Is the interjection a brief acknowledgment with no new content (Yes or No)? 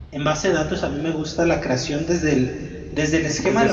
Yes